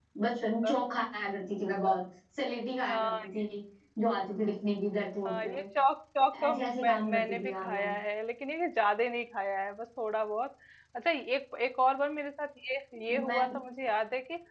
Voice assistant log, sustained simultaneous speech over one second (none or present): present